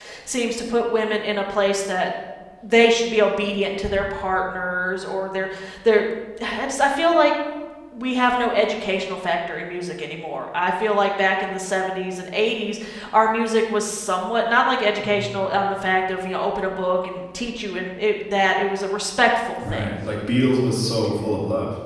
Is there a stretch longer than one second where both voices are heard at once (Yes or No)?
No